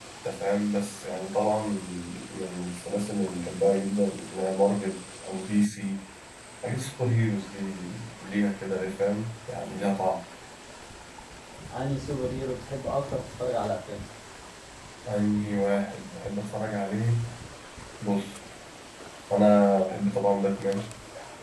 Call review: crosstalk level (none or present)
none